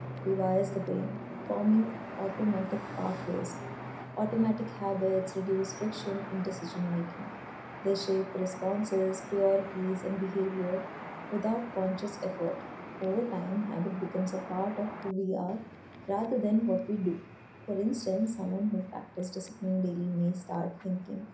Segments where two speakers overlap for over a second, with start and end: none

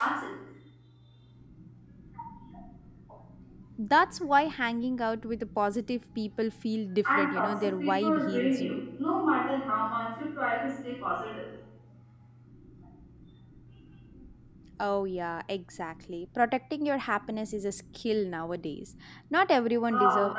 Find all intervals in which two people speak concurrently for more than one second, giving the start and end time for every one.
7.1-8.8

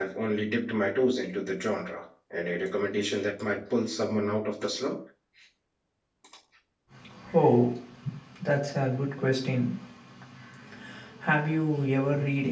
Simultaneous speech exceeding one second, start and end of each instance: none

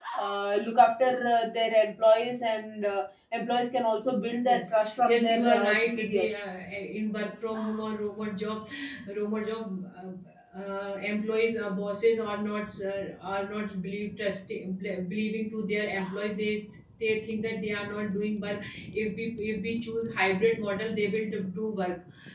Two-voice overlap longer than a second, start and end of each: 4.4-6.3

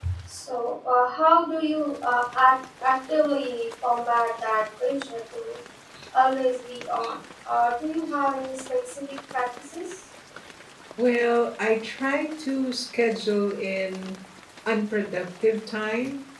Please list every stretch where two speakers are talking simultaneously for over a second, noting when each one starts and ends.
none

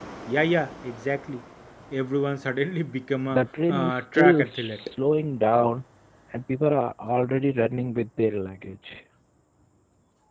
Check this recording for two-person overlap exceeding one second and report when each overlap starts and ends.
3.3-4.7

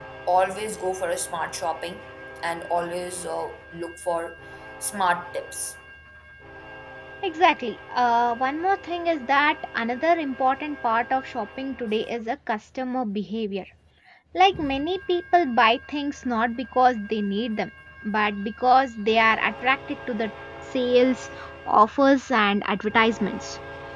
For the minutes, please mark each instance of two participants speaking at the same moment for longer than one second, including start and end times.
none

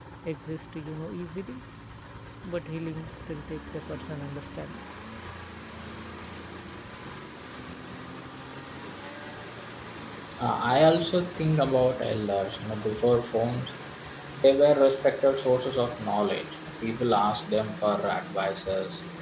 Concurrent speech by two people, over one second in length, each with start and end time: none

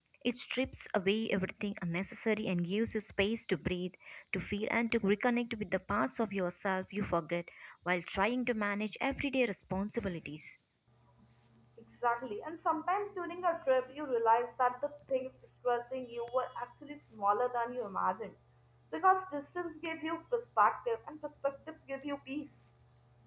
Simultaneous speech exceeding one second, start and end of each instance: none

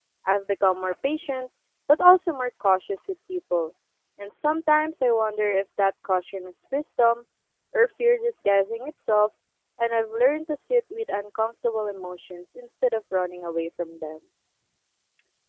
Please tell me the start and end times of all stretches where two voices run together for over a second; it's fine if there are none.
none

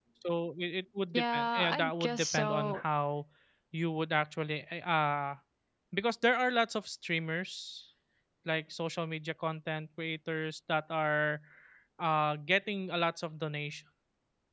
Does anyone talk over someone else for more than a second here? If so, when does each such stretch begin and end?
1.1-2.8

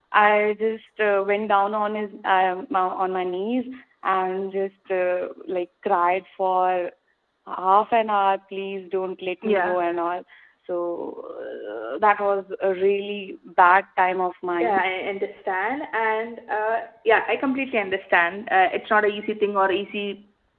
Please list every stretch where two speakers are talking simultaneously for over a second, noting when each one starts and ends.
none

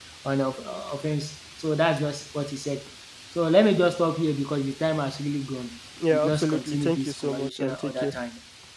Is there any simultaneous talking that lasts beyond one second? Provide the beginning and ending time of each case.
6.1-8.2

